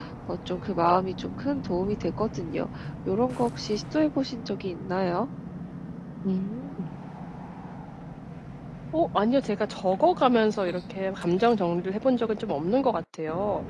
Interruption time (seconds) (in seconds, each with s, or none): none